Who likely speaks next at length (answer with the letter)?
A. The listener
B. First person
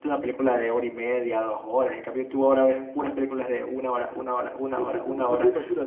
A